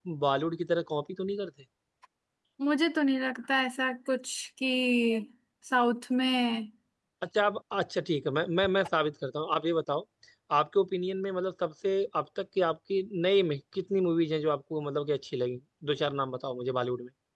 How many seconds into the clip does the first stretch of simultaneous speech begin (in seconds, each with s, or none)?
none